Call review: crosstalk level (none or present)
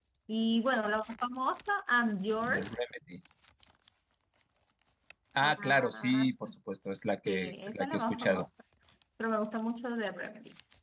present